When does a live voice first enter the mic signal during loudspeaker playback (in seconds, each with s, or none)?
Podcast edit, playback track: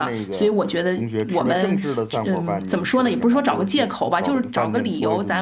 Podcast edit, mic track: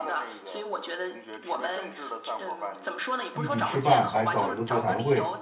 3.3 s